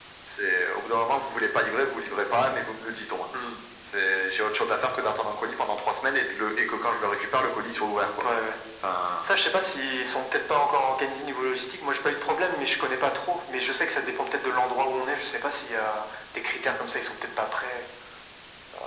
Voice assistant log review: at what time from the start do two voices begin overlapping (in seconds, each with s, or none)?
none